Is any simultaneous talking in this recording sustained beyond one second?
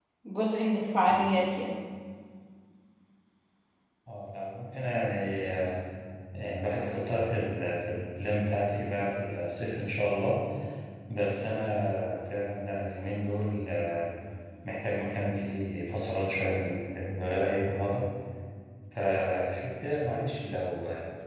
No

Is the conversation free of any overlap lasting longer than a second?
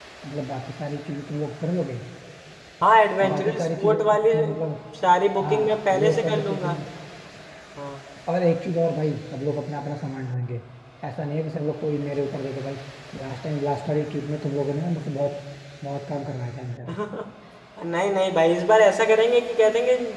No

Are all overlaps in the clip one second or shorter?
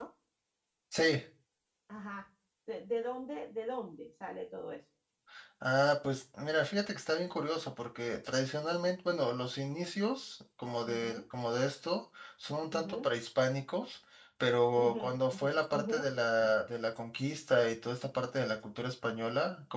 No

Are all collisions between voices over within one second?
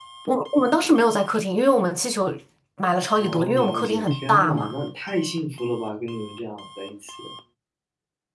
No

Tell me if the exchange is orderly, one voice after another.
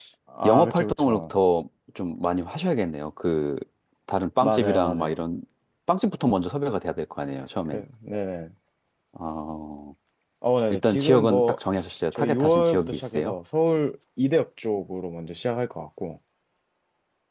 No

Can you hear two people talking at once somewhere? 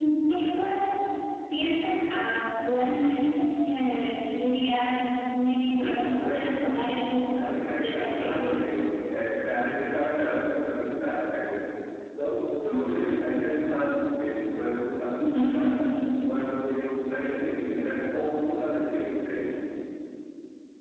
Yes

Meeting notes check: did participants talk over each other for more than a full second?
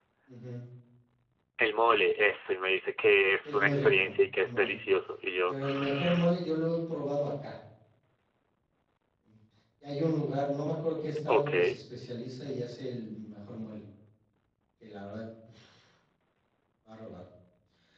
Yes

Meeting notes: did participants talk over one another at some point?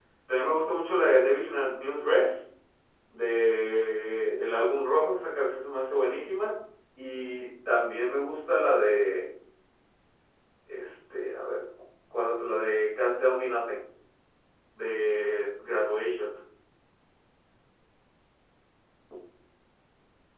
No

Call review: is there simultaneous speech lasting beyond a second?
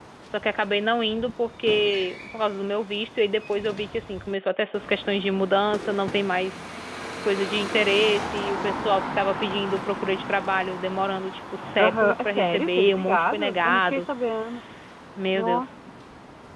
Yes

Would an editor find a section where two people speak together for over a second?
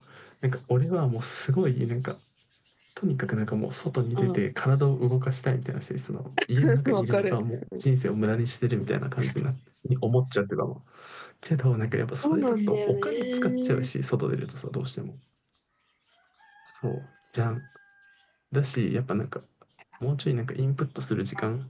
Yes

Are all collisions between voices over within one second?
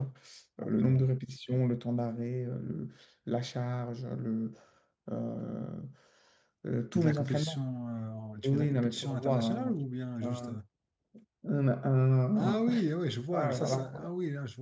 No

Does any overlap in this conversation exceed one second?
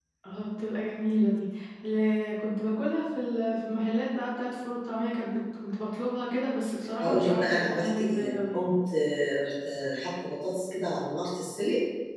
Yes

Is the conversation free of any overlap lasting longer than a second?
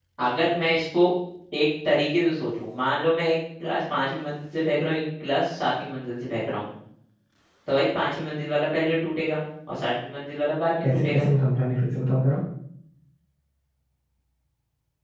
Yes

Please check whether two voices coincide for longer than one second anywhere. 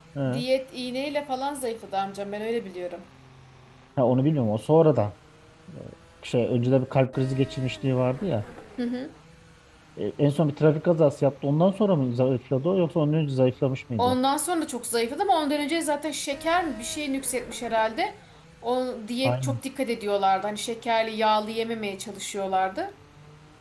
No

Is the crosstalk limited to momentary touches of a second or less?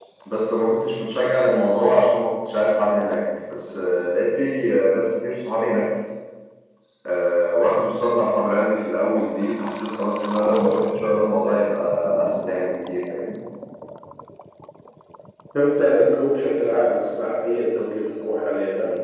Yes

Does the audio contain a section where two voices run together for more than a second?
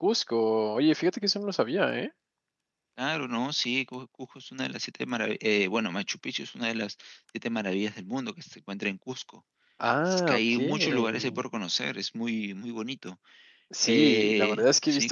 Yes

